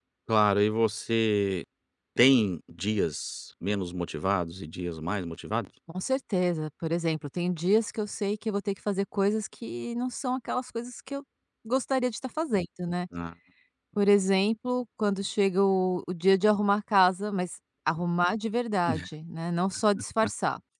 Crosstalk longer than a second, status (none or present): none